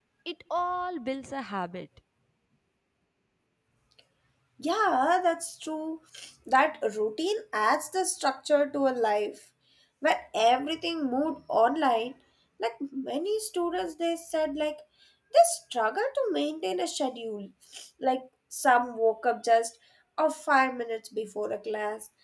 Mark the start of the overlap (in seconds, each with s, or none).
none